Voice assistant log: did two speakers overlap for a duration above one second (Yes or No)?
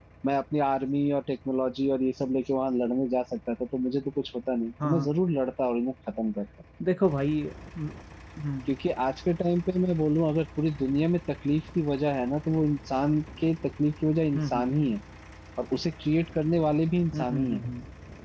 No